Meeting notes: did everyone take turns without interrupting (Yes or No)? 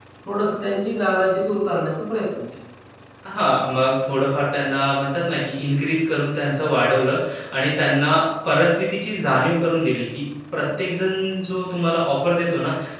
Yes